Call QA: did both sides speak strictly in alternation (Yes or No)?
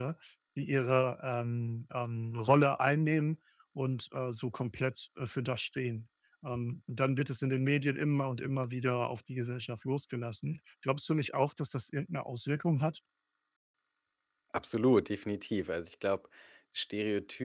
Yes